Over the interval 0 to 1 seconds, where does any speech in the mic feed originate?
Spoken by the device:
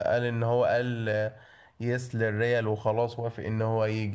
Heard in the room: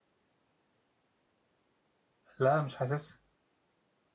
neither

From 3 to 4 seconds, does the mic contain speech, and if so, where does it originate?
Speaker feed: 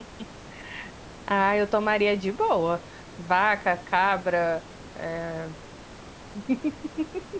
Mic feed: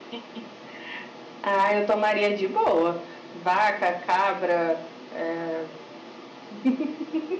echo only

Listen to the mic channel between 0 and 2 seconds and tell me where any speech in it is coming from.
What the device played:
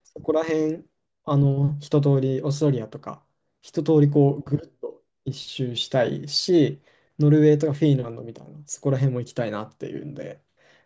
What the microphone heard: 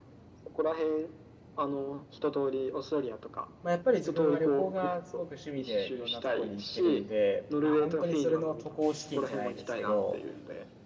echo only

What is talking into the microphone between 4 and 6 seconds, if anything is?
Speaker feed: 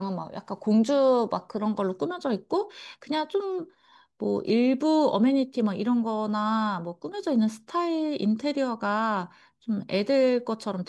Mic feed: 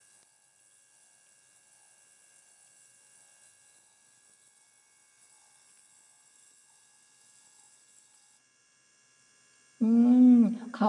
neither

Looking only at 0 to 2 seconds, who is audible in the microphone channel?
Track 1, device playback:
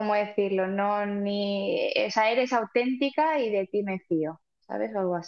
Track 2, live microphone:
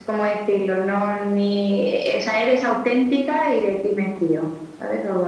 echo only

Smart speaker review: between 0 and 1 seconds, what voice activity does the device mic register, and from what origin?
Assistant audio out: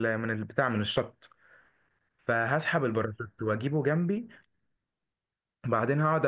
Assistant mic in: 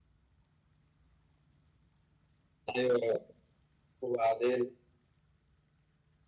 neither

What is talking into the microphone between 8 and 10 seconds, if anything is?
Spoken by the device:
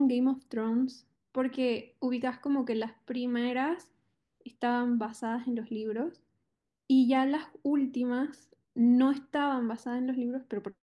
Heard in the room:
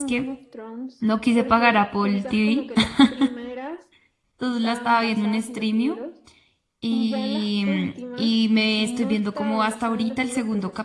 both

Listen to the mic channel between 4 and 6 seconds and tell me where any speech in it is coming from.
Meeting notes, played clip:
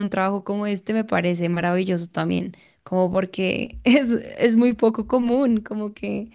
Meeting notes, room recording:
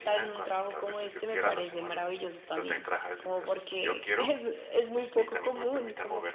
both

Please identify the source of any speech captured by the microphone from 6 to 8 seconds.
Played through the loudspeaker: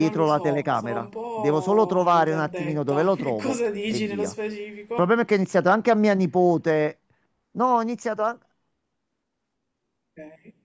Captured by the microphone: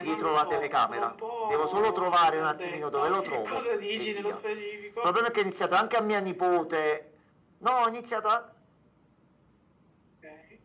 echo only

